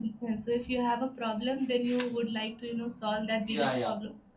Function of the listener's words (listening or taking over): taking over